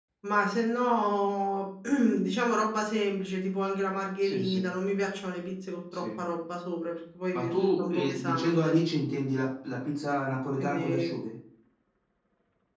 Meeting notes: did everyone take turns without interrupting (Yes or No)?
No